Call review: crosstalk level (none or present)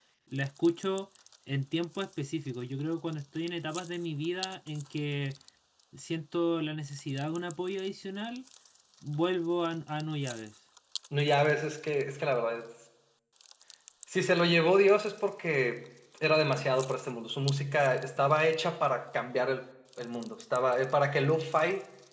none